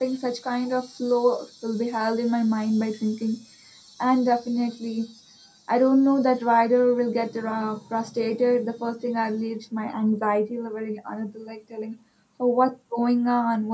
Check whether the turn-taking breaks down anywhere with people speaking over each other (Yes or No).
No